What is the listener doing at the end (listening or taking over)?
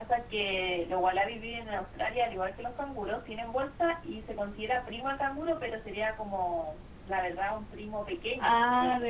taking over